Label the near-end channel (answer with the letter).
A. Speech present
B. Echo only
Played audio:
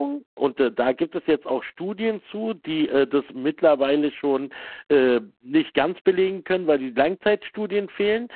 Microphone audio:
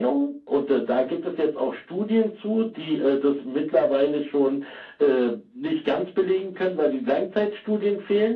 B